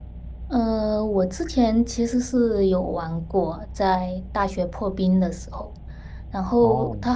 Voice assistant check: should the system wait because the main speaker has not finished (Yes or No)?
Yes